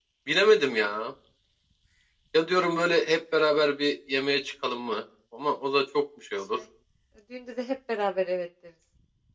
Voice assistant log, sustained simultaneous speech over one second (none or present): none